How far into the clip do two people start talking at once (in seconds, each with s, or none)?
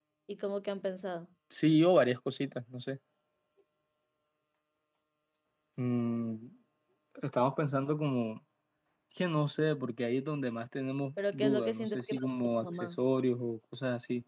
11.2 s